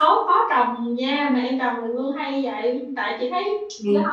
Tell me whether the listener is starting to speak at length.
No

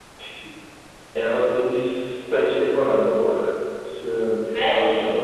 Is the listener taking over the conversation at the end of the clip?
No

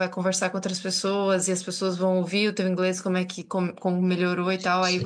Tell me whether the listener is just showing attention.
Yes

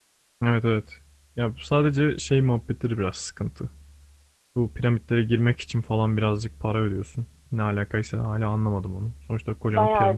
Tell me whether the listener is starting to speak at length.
Yes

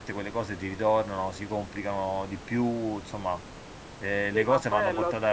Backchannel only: No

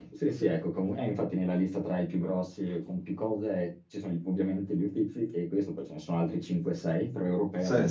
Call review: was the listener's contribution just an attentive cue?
Yes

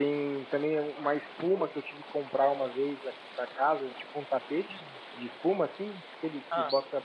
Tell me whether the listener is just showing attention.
Yes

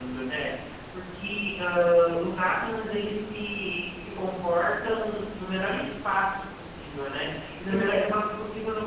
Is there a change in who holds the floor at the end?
No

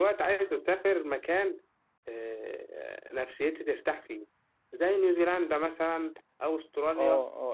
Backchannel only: No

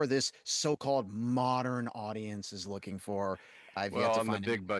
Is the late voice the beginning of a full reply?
Yes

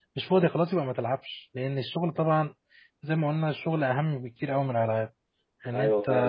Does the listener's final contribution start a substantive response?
Yes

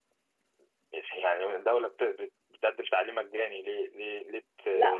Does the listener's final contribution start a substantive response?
Yes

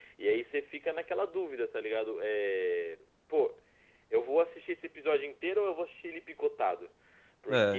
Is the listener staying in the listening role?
Yes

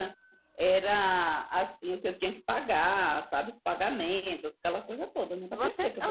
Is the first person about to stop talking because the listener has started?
Yes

